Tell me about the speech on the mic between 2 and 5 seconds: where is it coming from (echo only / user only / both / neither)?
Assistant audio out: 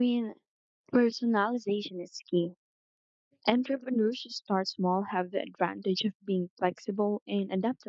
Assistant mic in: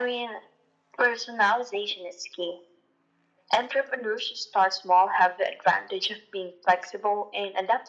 echo only